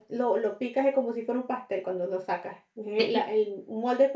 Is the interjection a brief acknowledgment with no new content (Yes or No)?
Yes